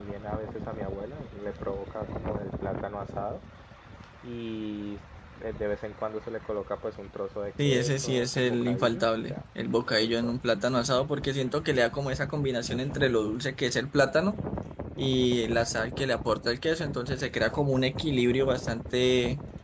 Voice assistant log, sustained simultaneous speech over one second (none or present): present